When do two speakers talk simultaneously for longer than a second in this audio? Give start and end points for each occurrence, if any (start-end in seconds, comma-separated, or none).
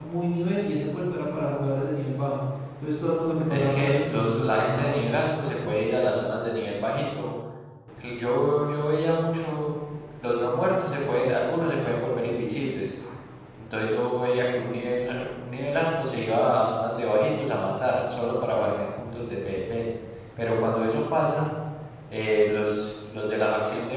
3.5-5.0